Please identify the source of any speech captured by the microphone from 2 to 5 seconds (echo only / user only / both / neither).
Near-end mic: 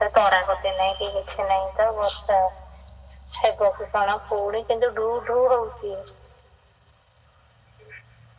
echo only